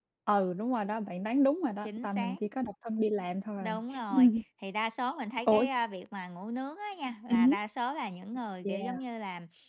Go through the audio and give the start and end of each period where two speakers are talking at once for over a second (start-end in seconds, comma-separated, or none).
none